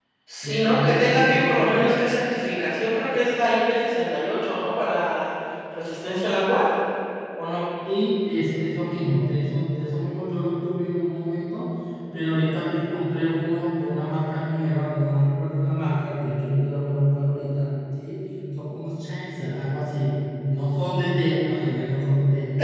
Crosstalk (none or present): present